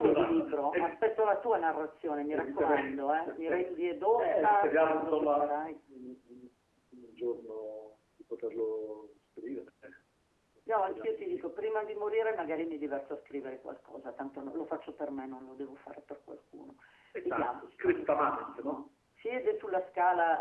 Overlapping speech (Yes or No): Yes